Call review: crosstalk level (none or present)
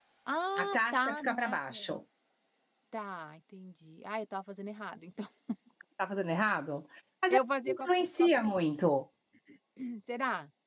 present